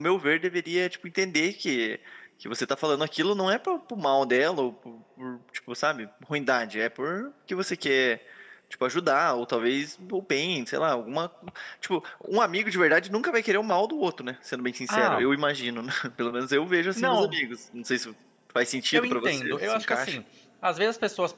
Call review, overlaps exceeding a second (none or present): present